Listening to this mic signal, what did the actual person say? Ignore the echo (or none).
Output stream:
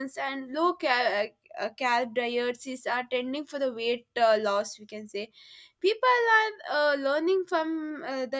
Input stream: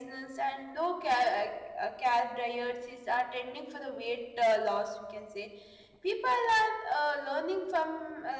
none